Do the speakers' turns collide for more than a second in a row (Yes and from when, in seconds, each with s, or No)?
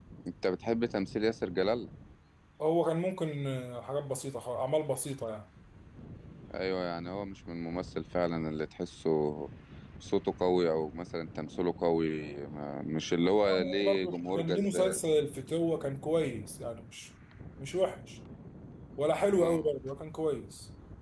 Yes, from 13.6 s